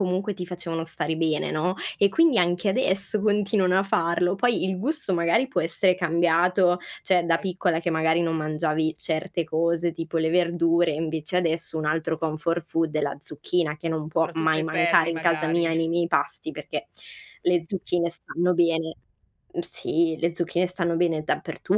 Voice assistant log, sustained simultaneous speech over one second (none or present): present